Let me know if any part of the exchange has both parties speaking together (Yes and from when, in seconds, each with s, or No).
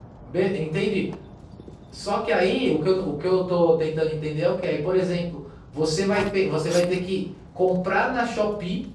No